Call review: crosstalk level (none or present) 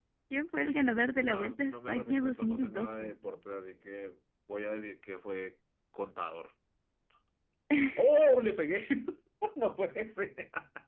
present